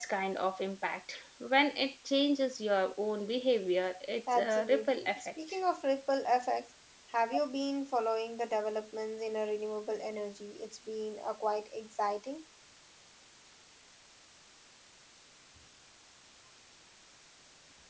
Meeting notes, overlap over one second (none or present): present